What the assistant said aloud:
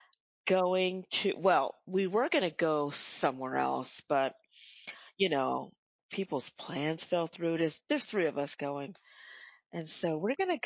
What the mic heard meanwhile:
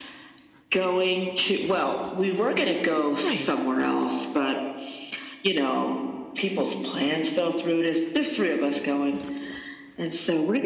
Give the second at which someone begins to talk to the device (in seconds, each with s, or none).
3.2 s